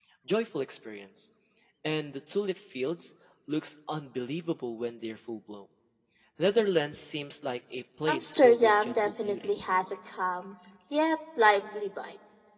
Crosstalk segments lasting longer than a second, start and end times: 8.1-9.6

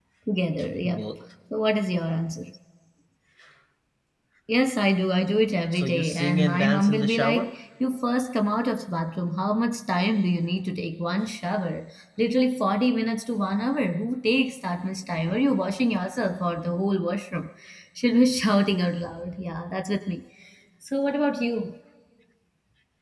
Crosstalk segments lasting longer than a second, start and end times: 5.7-7.4

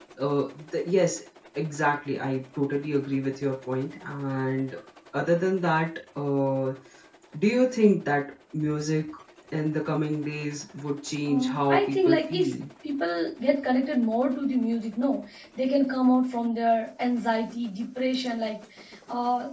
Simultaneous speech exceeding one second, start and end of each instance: 11.3-12.5

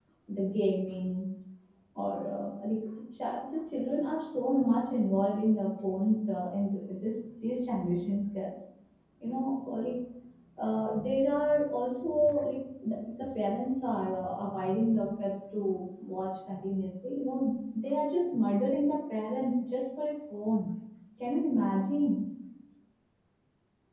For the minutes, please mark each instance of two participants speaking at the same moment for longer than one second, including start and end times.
none

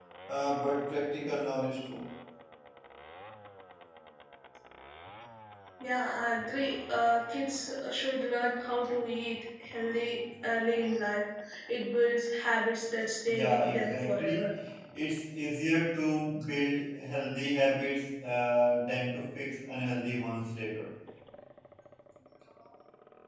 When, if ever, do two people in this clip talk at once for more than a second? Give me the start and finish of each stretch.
13.2-14.5

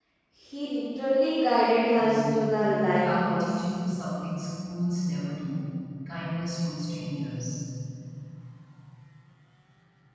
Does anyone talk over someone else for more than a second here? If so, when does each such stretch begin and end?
2.0-3.6

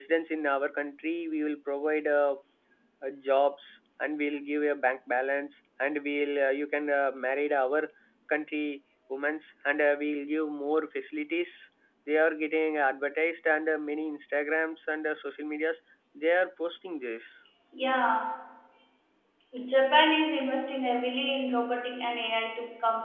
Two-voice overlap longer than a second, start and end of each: none

